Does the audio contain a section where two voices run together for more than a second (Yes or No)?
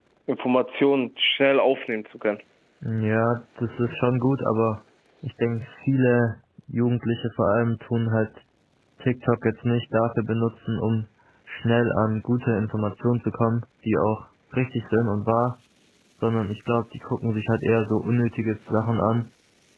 No